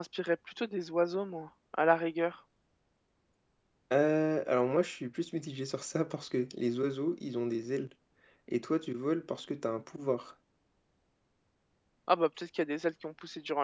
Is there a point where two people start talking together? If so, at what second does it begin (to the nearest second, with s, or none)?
none